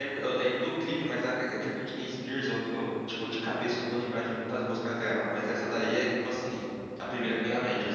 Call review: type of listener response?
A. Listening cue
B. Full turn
B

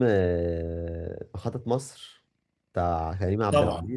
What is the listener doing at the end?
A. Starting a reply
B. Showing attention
A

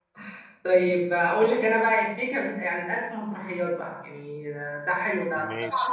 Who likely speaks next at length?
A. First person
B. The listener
A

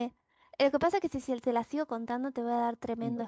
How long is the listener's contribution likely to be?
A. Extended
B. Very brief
A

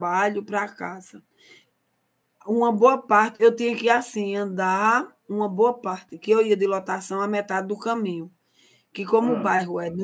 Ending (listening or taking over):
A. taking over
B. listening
B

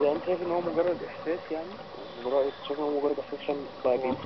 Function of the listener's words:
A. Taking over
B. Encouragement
B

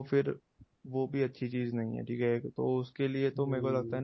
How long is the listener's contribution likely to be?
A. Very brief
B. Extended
B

